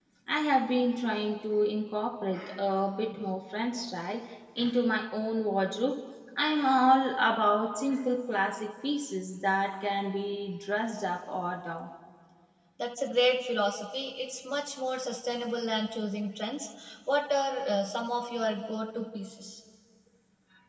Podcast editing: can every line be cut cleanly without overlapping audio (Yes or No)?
Yes